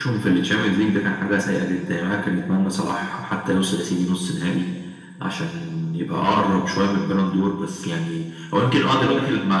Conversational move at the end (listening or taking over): listening